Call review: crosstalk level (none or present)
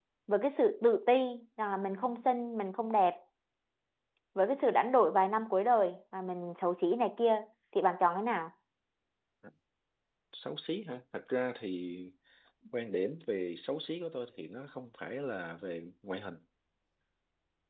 none